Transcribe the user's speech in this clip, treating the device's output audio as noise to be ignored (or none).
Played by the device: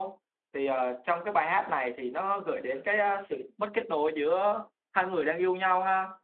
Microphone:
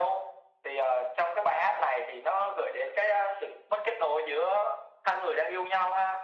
none